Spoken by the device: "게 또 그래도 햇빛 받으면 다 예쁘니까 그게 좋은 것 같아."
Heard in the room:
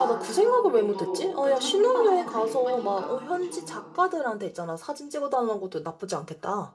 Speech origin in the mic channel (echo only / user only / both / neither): both